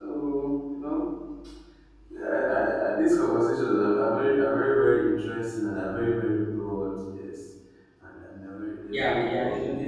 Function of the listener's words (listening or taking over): taking over